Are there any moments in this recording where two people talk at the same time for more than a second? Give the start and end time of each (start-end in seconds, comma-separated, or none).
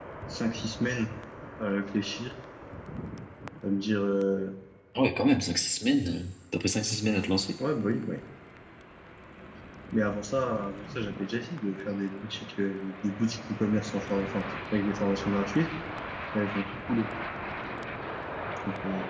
none